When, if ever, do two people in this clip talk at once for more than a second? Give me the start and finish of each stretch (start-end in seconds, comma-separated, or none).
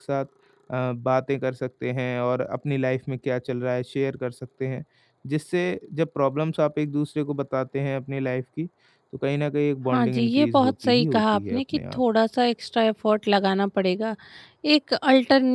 9.9-12.0